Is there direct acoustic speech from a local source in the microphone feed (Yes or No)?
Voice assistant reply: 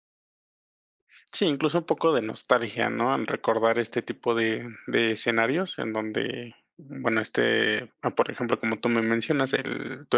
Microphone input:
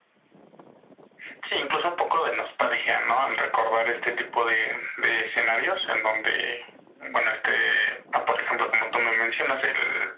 No